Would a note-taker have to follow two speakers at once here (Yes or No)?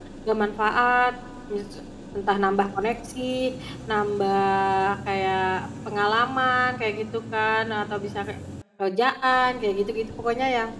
No